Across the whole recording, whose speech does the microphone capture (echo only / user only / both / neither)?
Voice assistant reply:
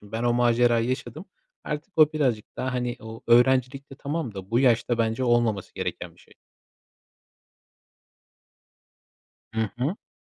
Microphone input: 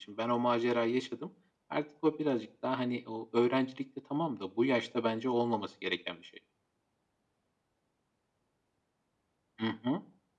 echo only